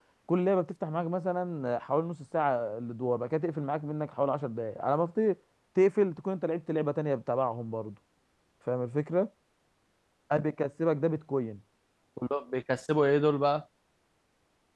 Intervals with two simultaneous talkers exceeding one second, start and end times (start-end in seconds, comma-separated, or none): none